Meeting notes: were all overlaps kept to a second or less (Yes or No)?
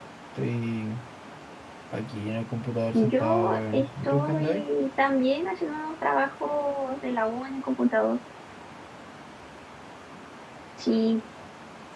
No